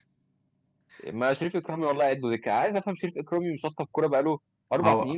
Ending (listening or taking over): taking over